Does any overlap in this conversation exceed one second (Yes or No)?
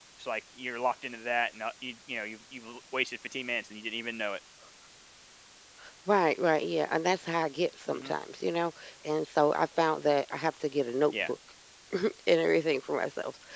No